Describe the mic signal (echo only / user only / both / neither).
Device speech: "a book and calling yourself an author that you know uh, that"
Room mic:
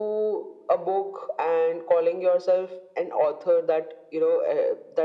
echo only